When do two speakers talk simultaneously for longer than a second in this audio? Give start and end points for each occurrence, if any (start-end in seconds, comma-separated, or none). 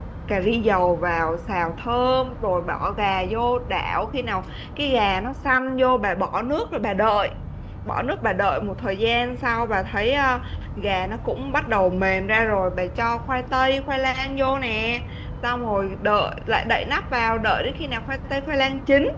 none